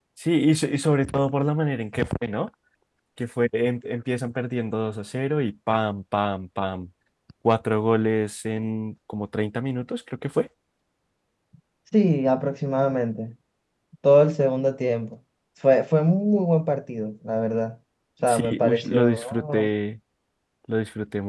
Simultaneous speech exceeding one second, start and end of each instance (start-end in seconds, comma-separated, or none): 18.3-19.7